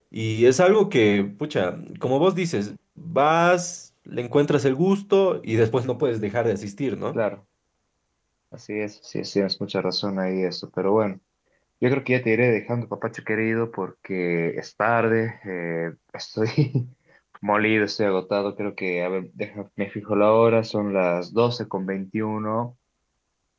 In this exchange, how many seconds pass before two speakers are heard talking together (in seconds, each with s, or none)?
none